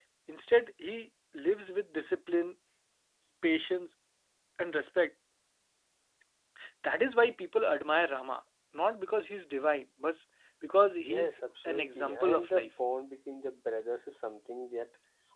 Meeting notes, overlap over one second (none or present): present